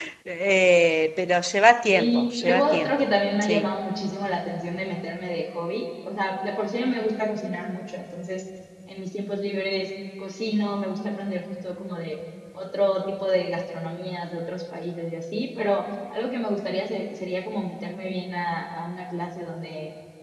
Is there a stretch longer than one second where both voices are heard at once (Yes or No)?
Yes